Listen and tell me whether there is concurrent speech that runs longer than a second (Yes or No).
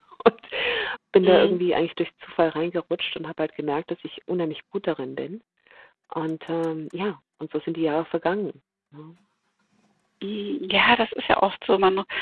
No